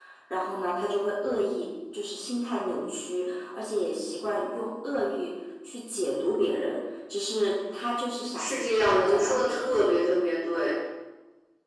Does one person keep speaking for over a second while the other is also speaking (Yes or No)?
Yes